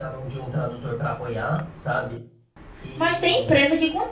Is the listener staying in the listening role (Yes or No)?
No